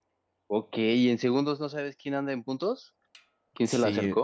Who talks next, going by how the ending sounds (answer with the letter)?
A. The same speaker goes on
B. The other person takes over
B